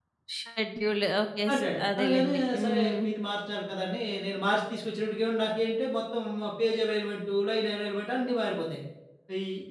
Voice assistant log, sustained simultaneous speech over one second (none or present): present